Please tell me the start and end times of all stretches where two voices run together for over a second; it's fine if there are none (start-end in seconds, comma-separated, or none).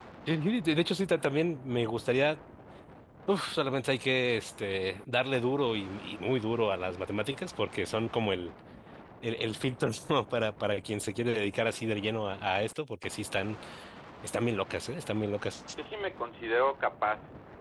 none